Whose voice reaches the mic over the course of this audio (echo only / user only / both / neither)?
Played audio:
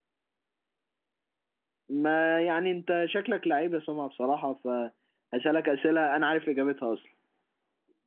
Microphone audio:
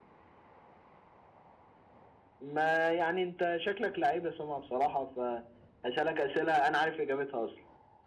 echo only